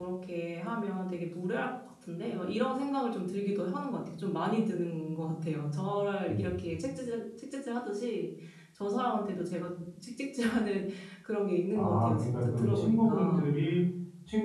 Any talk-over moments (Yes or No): Yes